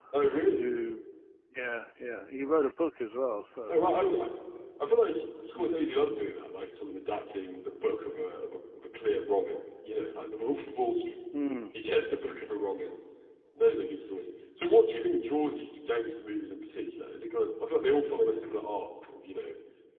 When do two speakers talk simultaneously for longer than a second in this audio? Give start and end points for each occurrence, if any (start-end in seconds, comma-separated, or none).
none